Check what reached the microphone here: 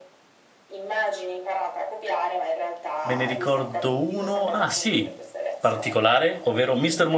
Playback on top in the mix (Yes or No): No